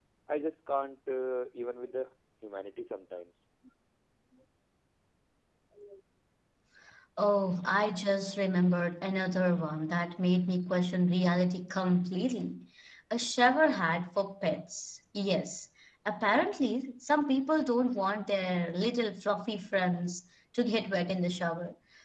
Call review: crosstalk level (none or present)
none